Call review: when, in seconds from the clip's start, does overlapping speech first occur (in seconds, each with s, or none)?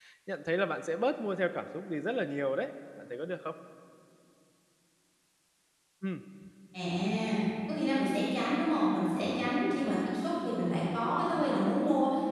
none